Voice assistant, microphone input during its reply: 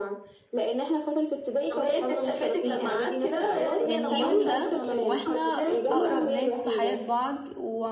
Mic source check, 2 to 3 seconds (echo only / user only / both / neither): echo only